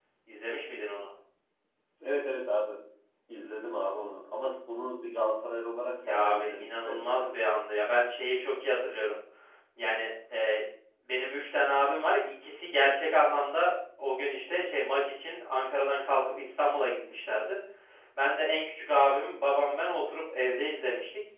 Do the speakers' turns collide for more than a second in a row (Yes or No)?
Yes